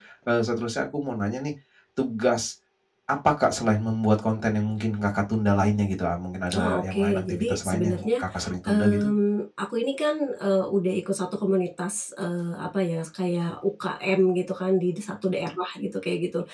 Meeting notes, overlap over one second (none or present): present